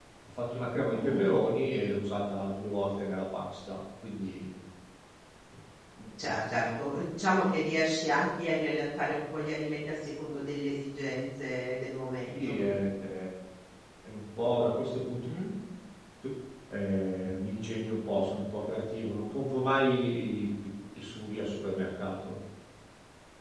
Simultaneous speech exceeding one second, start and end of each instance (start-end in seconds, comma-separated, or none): none